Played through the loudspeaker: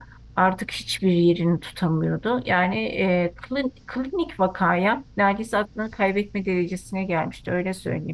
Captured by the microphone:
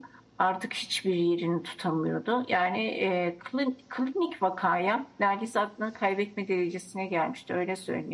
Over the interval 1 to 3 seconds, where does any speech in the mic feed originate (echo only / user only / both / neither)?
echo only